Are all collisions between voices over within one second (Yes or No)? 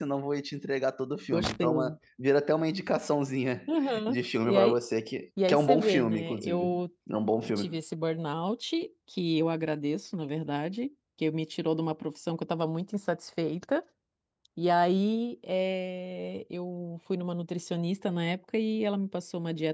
No